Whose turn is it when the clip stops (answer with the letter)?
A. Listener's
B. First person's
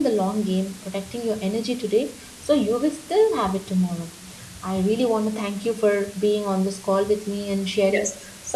B